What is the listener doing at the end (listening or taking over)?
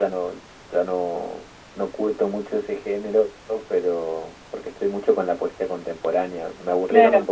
listening